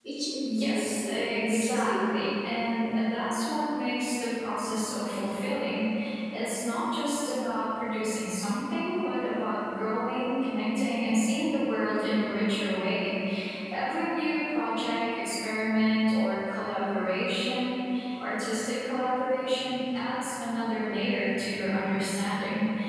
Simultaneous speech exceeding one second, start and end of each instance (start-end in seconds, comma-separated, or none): 0.6-2.3